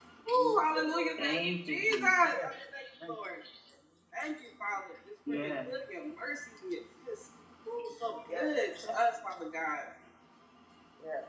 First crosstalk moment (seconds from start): 1.2 s

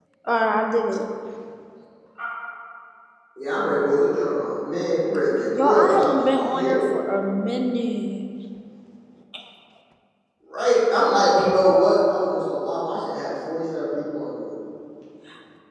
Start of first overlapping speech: 5.5 s

